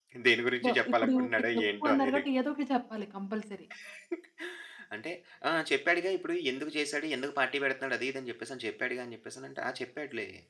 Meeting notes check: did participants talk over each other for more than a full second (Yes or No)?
Yes